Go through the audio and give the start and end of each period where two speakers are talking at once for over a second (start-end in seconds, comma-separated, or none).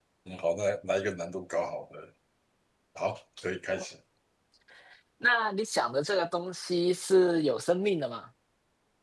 none